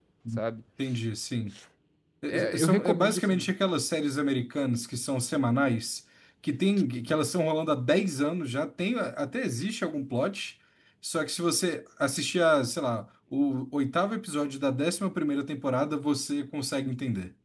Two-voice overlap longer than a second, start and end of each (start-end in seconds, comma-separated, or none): 2.3-3.5